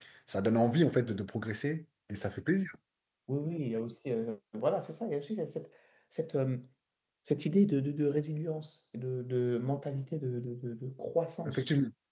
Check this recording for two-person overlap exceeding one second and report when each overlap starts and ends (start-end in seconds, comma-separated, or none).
none